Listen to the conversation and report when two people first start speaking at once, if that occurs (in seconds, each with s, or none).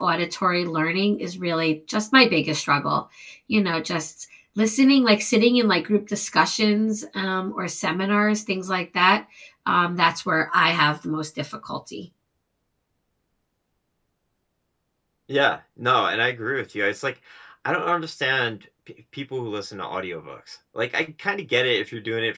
none